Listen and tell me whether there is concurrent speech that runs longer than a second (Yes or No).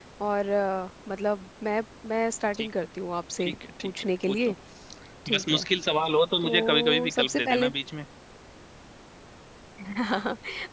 Yes